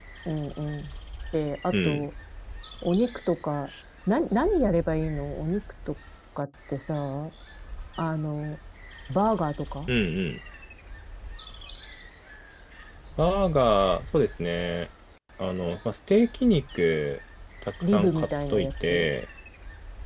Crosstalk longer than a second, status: present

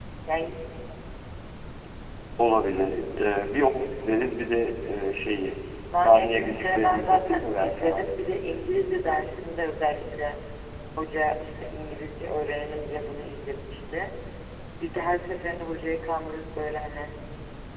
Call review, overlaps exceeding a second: present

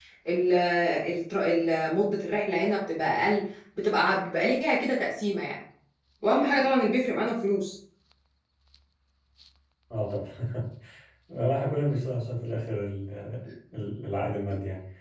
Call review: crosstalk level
none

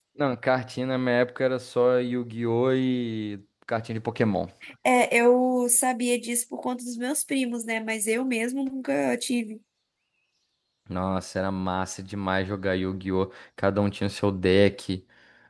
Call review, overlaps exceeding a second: none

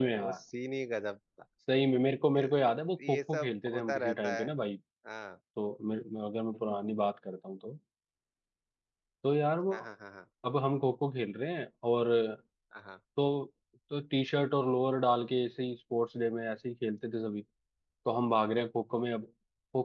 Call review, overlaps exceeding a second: present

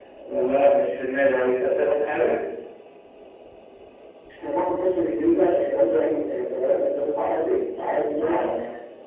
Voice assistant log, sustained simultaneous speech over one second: none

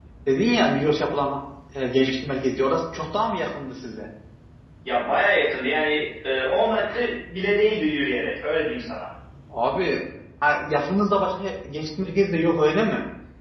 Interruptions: none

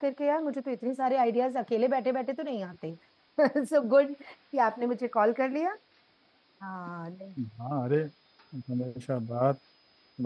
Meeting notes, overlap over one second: none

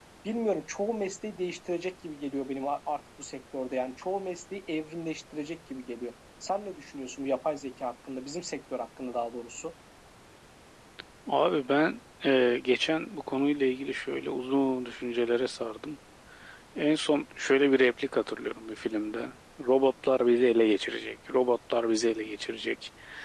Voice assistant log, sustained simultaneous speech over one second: none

